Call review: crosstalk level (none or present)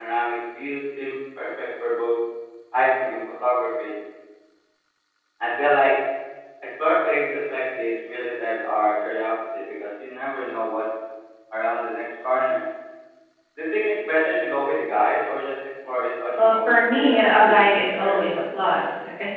present